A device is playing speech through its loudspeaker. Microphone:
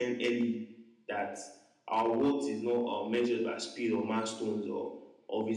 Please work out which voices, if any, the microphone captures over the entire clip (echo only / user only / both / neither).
user only